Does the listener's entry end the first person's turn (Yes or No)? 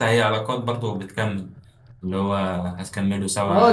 Yes